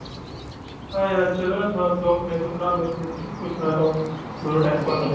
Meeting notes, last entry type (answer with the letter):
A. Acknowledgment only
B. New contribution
B